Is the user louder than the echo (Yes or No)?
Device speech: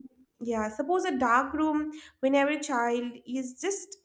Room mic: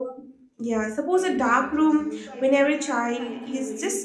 No